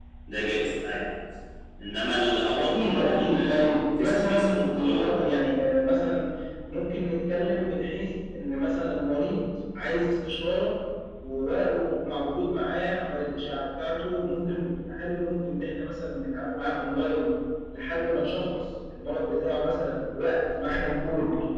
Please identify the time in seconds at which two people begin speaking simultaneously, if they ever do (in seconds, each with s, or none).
2.5 s